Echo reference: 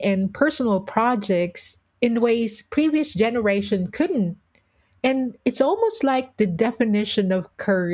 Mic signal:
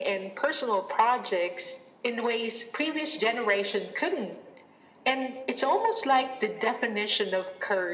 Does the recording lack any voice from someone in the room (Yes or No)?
Yes